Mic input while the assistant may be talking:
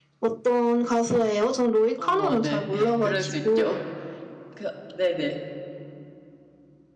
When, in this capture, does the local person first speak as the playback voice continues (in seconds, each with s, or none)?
2.0 s